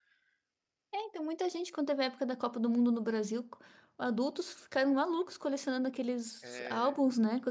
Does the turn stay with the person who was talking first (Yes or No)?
Yes